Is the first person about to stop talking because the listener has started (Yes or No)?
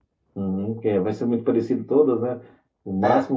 No